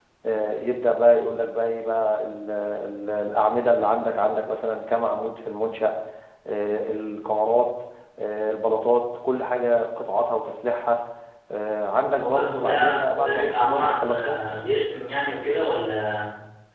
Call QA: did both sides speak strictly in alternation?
No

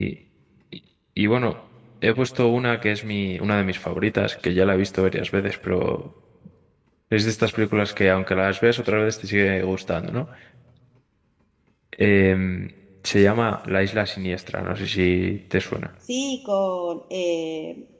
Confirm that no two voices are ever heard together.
Yes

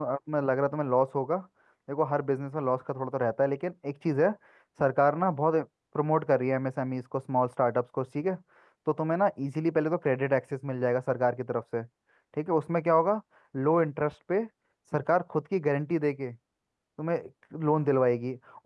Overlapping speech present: No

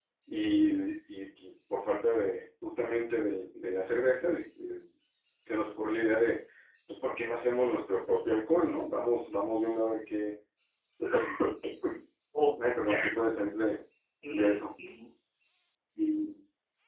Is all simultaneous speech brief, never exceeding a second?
Yes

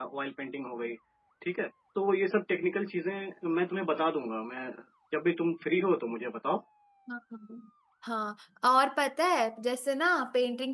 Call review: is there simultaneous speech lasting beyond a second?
No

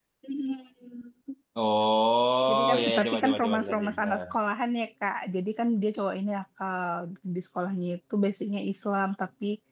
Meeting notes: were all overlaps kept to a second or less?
No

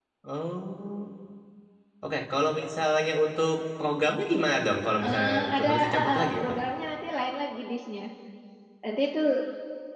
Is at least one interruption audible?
Yes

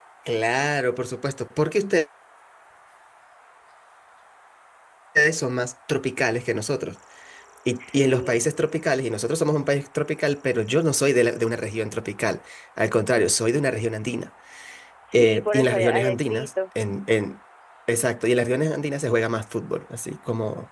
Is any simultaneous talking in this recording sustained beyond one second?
Yes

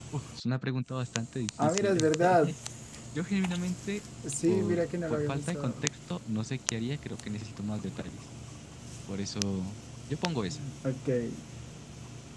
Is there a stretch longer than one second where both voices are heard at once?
Yes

